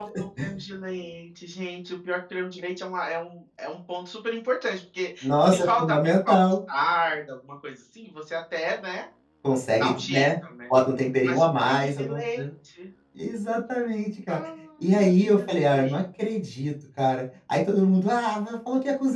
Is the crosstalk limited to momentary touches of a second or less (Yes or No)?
No